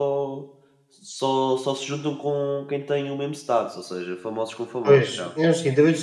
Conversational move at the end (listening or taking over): taking over